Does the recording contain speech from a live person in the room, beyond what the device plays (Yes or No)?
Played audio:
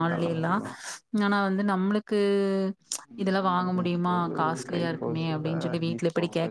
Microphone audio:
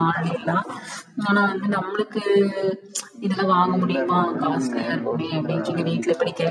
Yes